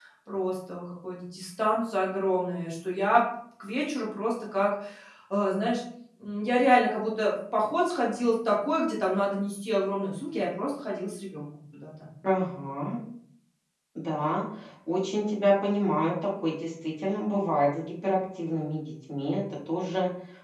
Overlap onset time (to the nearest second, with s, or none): none